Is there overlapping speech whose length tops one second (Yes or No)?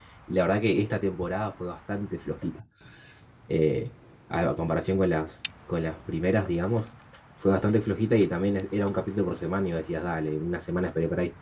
No